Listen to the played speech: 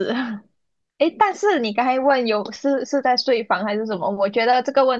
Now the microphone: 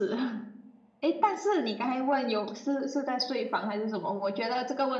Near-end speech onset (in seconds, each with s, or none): none